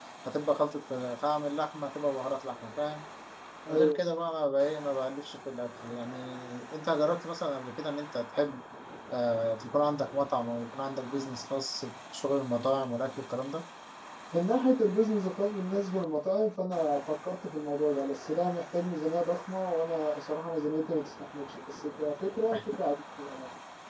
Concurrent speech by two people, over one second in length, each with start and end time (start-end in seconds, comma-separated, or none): none